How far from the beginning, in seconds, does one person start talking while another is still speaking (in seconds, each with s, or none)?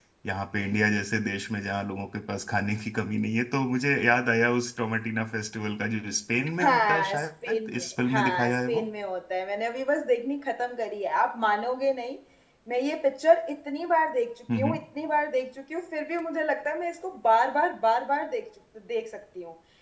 6.6 s